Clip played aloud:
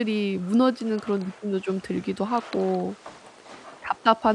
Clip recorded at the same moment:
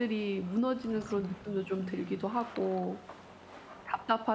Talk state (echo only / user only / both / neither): both